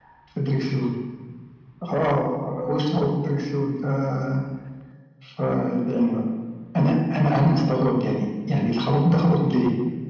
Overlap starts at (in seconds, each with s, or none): none